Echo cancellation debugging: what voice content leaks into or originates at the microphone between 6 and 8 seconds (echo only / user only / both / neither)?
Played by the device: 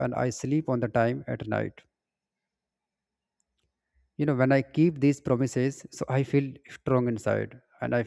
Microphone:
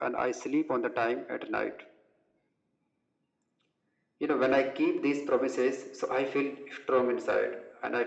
echo only